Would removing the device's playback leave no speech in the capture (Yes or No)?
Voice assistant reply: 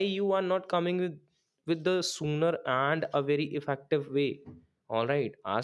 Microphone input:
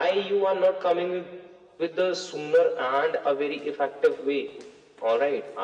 Yes